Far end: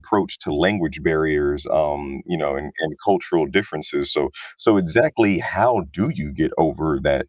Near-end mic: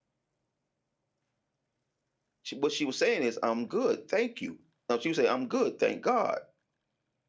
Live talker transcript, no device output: she, what she was saying is, I'm good, thank you. No, she would say, I'm good, thank God,

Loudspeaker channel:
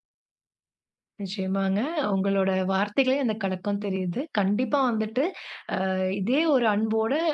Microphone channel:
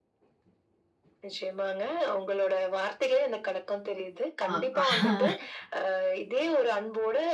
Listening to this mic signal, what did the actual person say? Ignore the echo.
ஆ.

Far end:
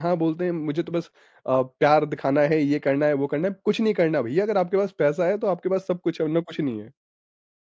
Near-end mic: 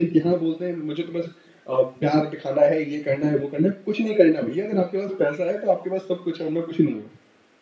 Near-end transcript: none

